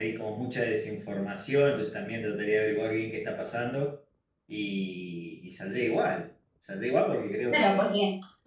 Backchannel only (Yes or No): No